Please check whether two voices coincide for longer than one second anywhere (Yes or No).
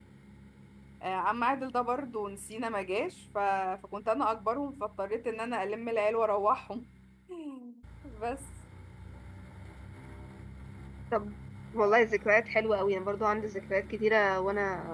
No